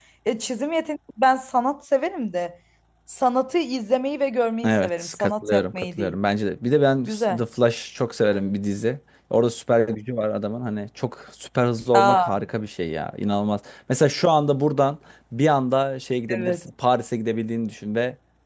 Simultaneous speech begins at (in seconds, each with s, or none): 4.6 s